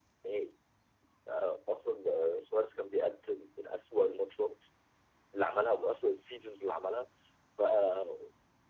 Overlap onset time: none

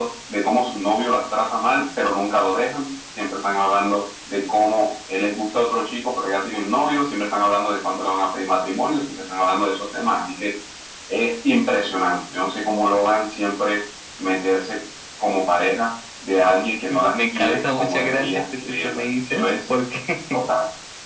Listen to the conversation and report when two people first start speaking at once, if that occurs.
17 s

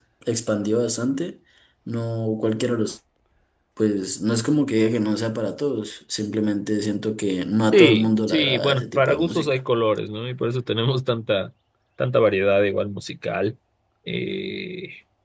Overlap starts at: 8 s

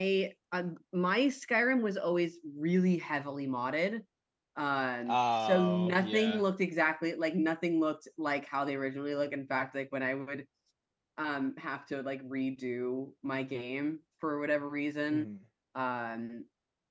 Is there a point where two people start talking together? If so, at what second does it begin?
5 s

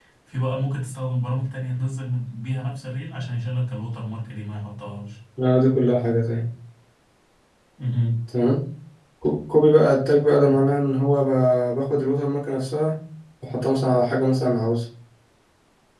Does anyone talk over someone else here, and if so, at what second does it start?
none

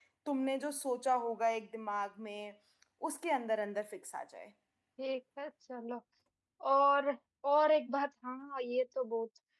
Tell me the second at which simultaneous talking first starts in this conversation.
none

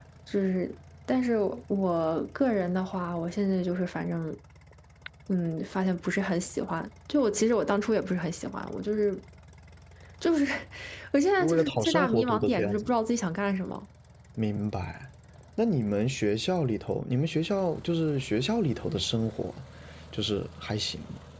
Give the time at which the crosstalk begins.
11 s

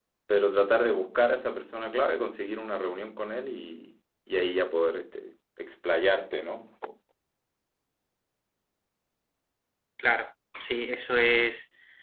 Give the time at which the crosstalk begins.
none

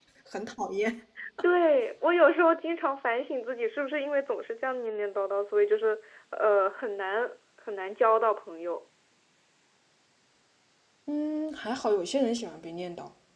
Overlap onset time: none

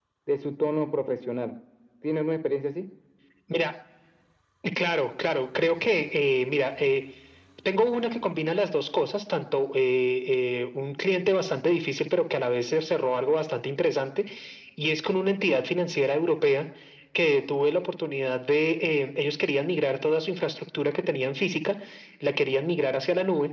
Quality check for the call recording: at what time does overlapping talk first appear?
none

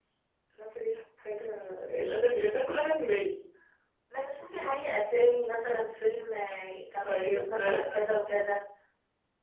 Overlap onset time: 7 s

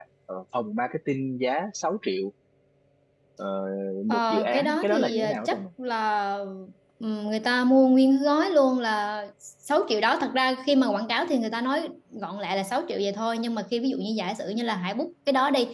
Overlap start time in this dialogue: 4 s

